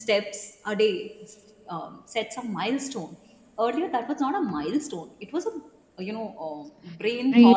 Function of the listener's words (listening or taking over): taking over